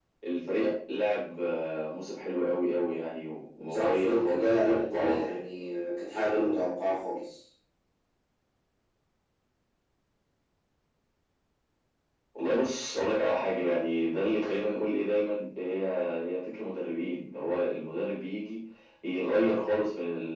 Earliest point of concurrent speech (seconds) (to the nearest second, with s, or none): 4 s